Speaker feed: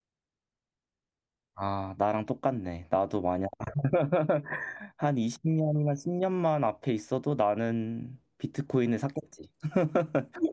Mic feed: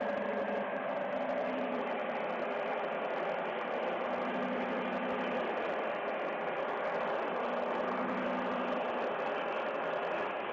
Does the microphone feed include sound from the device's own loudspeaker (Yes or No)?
No